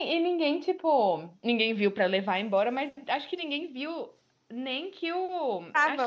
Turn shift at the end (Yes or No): No